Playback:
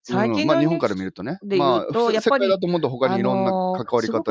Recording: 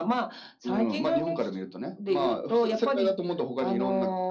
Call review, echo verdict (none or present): present